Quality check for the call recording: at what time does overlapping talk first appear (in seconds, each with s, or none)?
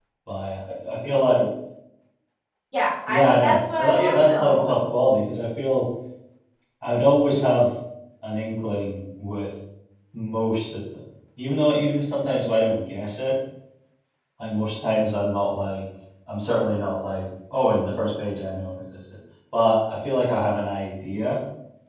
3.1 s